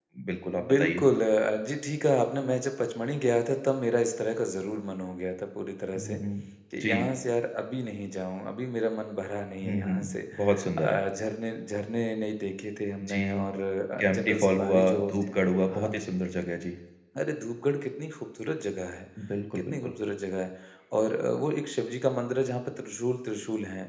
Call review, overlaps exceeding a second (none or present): present